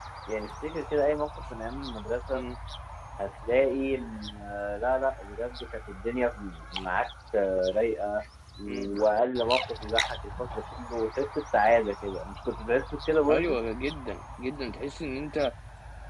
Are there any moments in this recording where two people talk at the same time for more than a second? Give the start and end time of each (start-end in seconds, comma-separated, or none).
none